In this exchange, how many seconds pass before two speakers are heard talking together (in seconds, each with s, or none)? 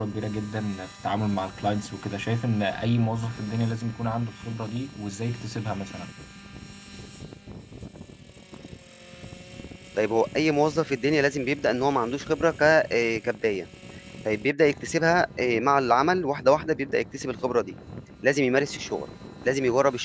none